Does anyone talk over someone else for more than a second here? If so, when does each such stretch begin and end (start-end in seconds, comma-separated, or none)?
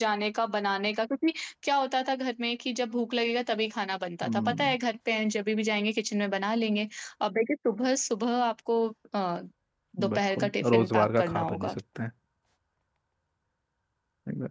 10.1-11.8